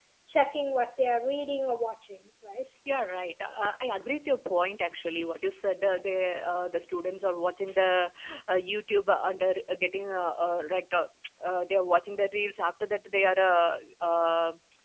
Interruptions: none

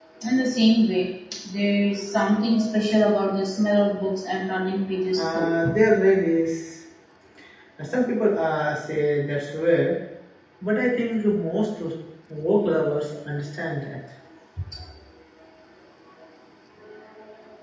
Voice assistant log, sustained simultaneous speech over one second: none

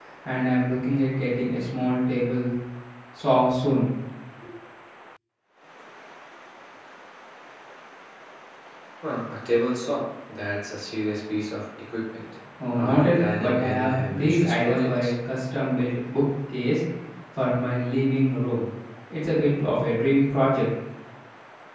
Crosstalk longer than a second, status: present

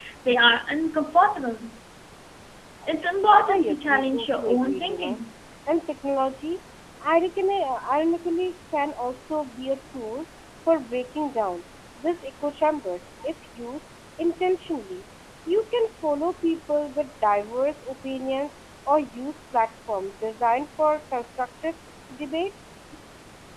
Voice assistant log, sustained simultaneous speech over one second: present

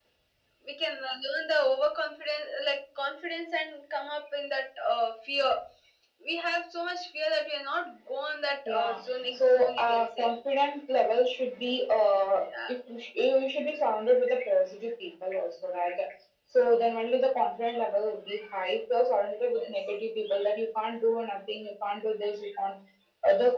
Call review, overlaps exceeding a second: present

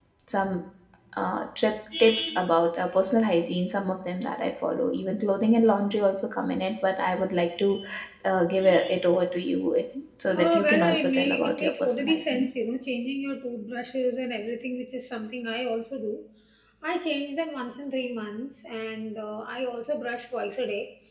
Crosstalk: present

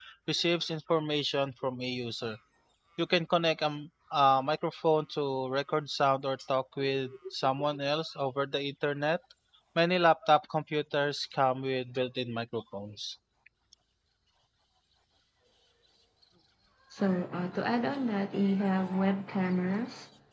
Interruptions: none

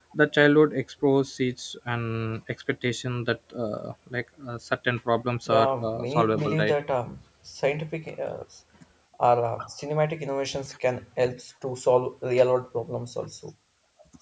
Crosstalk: present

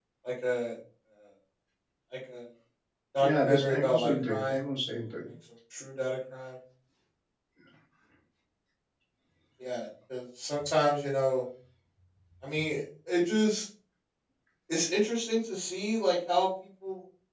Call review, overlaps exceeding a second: present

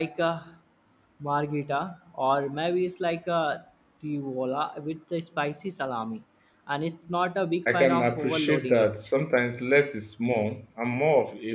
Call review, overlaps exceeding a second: present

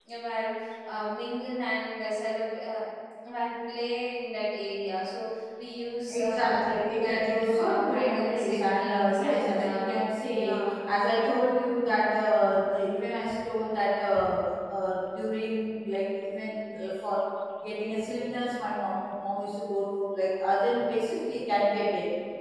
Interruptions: present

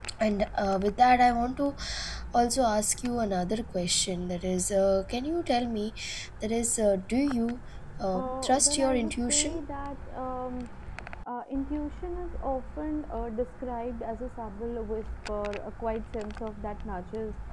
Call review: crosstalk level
present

